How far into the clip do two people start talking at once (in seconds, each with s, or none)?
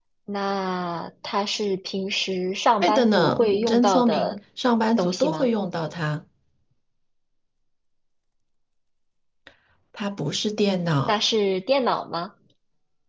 2.8 s